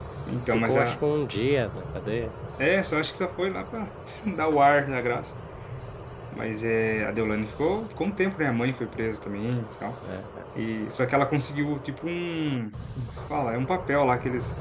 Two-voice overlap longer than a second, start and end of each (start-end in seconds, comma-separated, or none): none